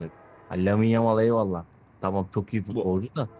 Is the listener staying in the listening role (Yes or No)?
Yes